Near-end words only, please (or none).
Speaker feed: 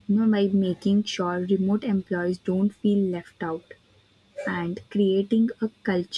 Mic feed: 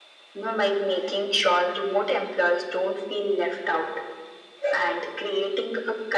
none